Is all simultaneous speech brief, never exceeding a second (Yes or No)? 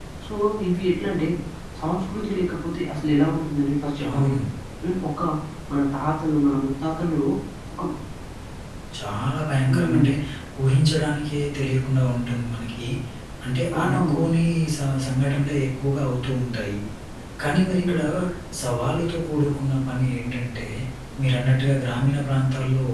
Yes